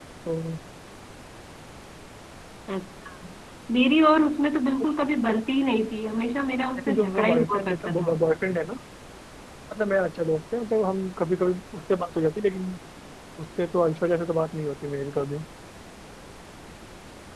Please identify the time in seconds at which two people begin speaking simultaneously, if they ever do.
6.8 s

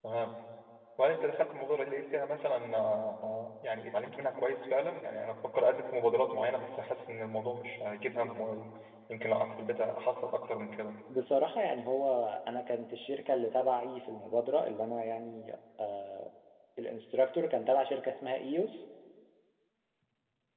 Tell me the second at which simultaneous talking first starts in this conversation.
none

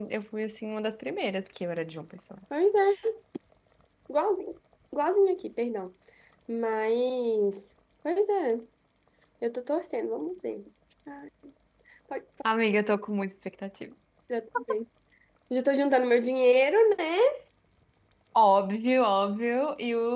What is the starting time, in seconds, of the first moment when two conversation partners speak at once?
none

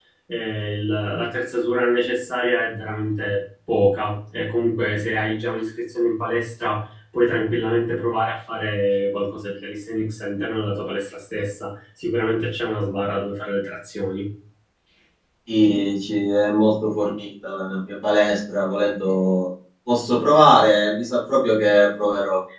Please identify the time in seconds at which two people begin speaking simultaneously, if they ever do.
none

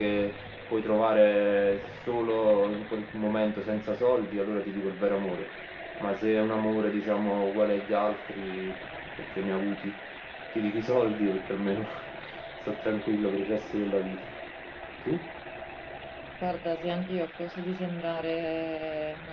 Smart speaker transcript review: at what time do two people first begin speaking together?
none

